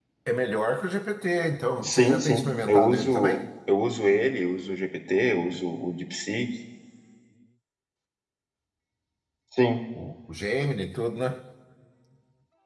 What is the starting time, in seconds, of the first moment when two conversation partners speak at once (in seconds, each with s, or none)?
1.8 s